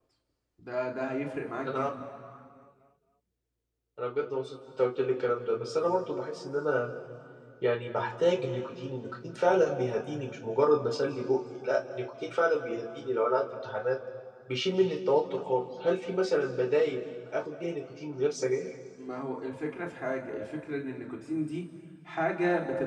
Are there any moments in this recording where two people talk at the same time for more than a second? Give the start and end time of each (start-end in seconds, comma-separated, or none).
none